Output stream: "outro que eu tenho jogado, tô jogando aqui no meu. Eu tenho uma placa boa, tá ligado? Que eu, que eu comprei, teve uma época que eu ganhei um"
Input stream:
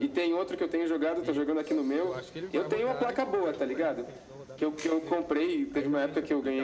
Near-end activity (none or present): present